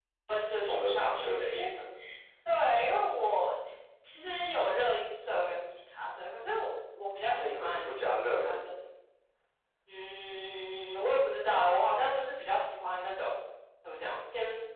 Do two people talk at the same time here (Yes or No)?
Yes